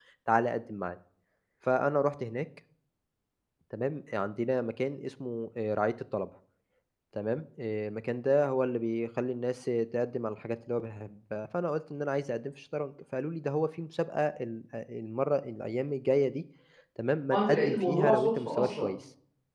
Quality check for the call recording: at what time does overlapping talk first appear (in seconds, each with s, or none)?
17.3 s